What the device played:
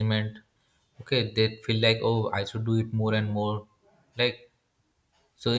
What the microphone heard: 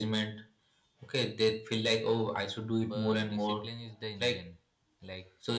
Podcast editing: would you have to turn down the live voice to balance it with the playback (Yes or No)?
No